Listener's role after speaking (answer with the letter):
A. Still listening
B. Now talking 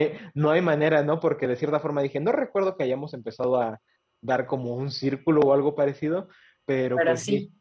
A